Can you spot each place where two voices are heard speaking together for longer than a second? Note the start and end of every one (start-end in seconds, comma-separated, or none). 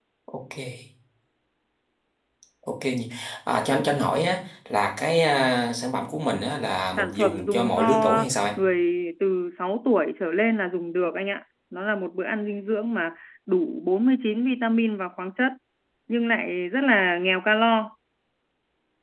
7.0-8.3